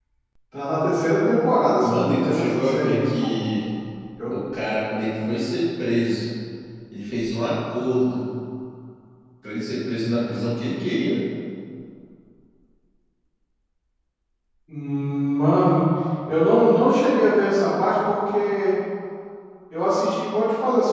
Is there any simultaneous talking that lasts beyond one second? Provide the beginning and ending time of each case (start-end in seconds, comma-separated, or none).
1.8-3.3